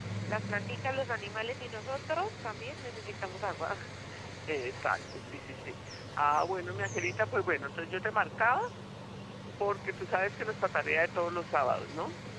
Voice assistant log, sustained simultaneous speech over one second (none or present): none